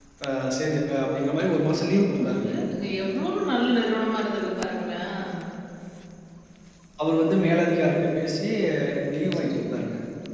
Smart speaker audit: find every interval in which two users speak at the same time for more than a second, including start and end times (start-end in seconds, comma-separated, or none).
none